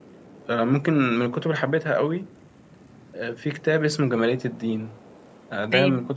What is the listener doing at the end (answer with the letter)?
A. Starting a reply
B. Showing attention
B